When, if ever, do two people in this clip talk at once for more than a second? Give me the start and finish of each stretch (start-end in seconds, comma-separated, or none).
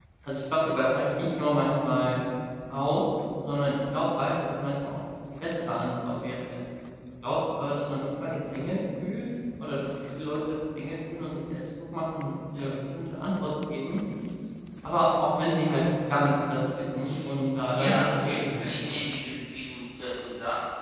17.7-19.0